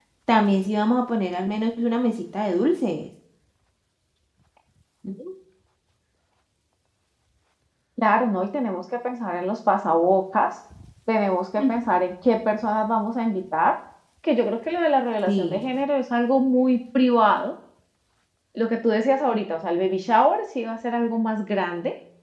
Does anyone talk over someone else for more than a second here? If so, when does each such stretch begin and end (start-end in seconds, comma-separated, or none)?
none